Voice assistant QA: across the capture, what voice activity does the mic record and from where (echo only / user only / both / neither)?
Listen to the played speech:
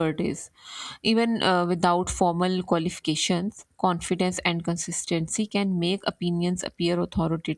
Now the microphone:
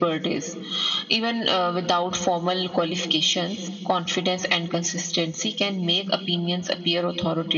echo only